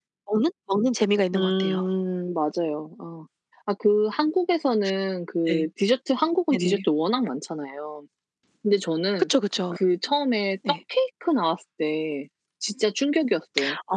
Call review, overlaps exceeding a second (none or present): none